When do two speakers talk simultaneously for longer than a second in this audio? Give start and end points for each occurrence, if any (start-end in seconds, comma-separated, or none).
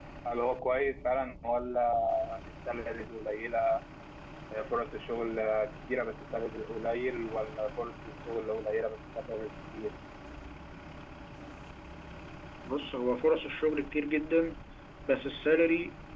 none